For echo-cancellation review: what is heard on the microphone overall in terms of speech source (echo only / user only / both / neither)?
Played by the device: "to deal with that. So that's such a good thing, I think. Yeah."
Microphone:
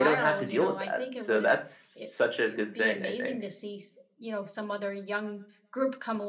both